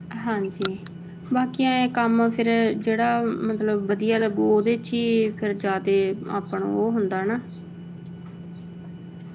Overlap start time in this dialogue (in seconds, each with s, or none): none